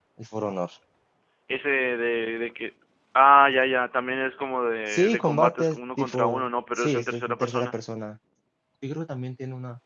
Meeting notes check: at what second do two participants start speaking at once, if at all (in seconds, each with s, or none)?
4.9 s